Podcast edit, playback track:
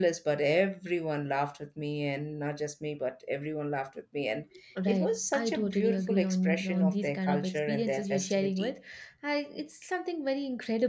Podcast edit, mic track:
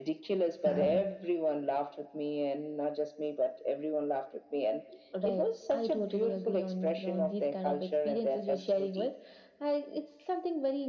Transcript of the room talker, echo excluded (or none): Wow.